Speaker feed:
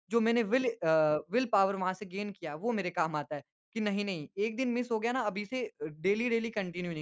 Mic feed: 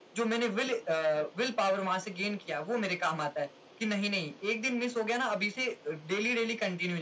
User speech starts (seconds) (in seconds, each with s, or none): none